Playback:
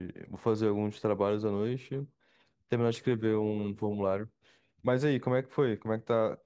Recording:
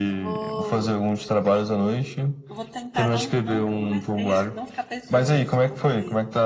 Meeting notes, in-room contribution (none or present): present